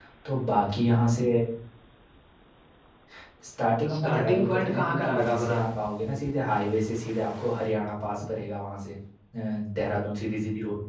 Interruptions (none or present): present